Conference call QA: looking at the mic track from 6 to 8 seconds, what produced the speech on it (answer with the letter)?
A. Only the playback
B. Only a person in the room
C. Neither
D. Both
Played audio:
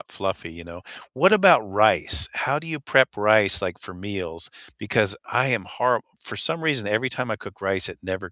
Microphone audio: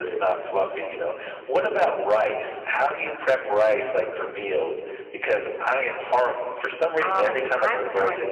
D